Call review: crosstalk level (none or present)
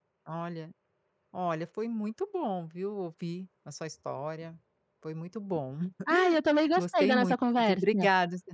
present